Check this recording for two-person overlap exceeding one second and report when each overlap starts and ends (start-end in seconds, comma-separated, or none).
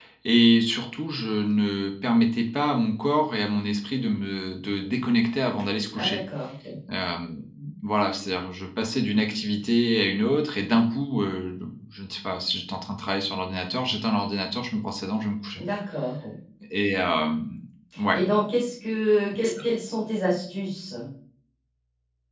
none